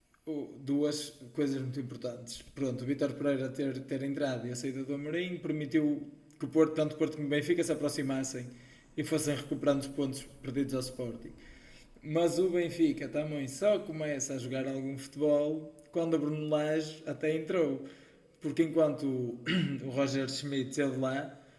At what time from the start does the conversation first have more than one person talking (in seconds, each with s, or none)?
none